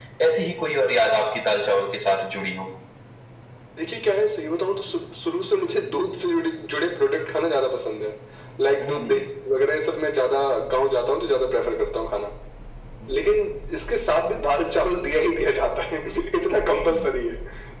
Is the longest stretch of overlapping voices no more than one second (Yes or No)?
Yes